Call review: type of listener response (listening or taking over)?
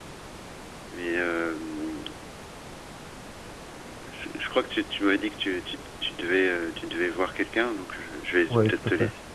taking over